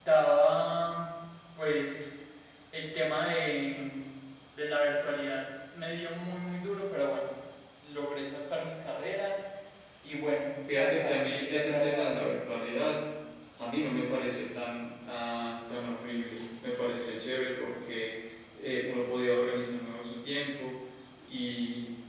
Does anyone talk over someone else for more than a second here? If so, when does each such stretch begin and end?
10.8-12.2

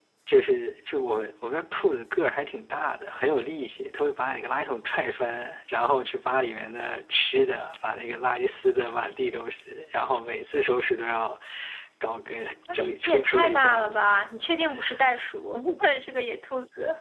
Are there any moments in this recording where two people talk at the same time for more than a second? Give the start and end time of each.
12.7-14.0

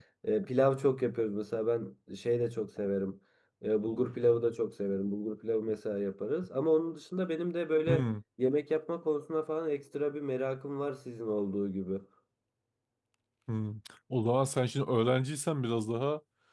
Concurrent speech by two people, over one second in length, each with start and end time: none

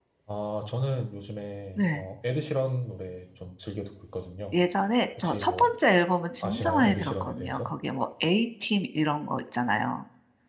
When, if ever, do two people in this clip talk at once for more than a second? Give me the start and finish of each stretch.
6.4-7.7

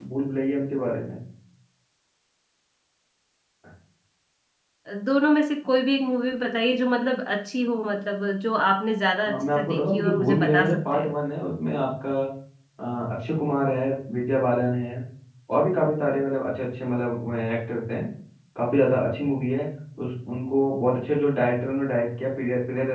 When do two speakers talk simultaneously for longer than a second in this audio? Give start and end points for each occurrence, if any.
9.3-11.1

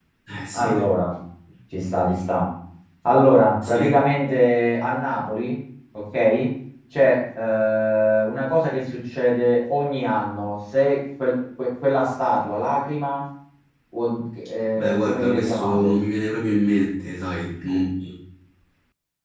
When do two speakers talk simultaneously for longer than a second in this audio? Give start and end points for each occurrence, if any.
14.8-16.0

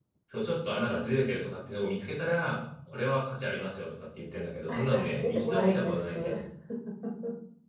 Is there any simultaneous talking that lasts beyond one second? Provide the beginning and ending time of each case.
4.7-6.3

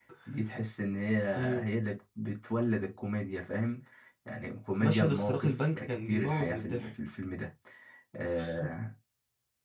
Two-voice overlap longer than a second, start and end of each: 4.8-6.9

